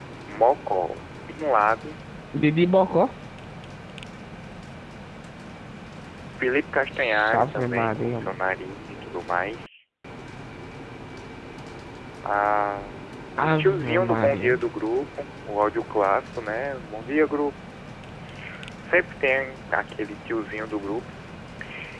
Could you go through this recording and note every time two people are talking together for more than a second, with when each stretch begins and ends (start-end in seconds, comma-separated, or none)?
7.0-8.2, 13.4-14.6